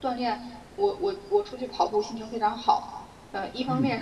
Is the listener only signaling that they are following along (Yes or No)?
Yes